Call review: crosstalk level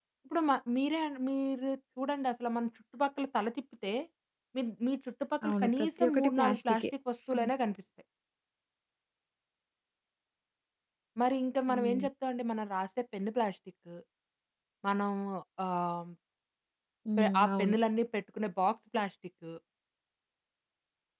present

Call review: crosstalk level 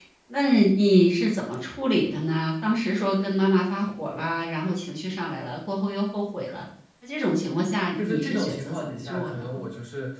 present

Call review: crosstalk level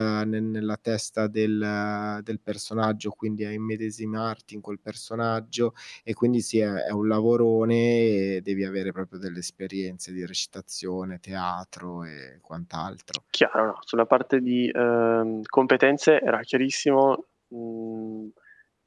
none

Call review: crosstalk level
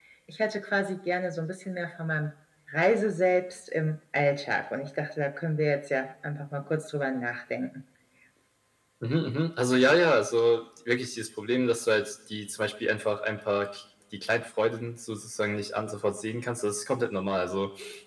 none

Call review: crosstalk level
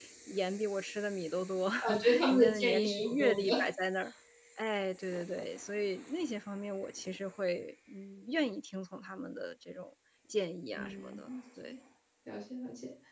present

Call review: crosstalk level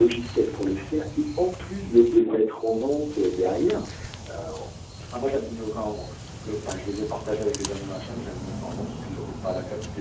none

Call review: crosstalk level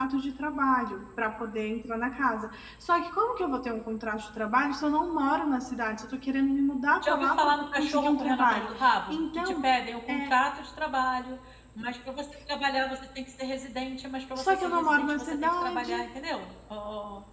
present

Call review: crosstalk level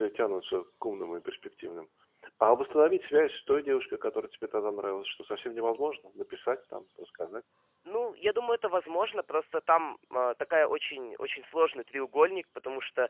none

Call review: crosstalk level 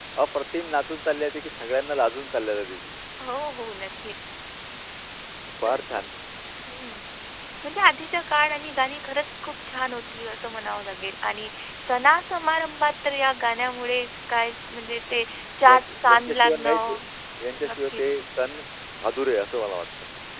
present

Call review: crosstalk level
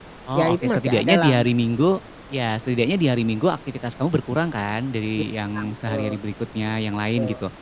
present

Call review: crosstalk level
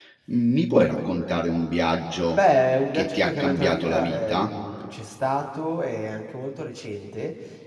present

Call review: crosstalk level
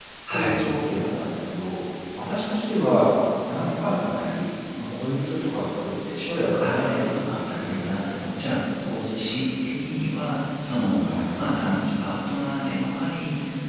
present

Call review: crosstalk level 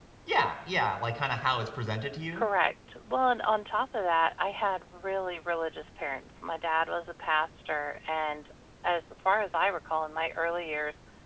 none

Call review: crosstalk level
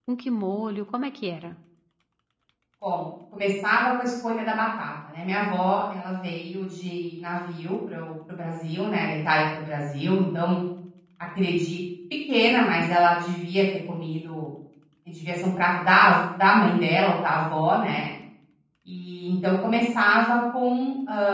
none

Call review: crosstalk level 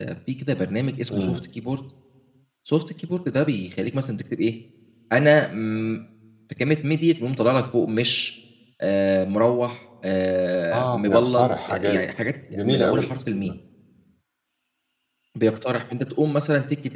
present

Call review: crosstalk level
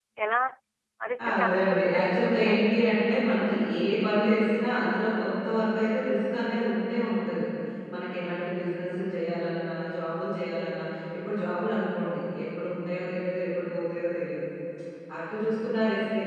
present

